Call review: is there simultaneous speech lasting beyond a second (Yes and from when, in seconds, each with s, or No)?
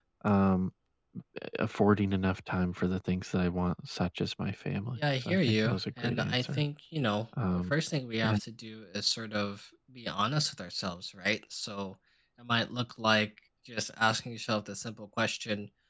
Yes, from 5.0 s